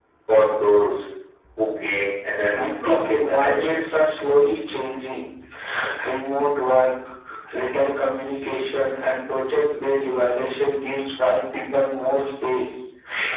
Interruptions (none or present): present